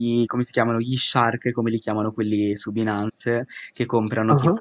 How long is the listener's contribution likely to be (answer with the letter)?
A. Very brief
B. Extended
A